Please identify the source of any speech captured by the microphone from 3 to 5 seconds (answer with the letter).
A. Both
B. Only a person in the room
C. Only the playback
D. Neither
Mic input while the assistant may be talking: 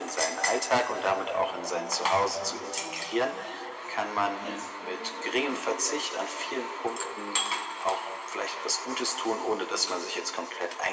A